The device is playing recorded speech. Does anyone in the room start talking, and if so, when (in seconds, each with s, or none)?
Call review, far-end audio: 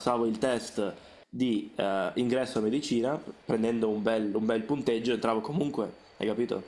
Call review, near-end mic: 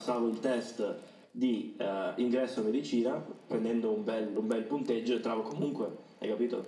none